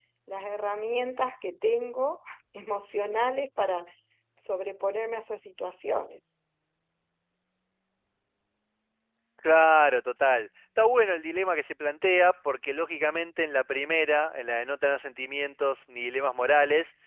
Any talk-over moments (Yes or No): No